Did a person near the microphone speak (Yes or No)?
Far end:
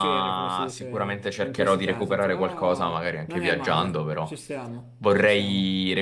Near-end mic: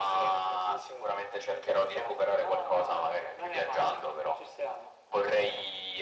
No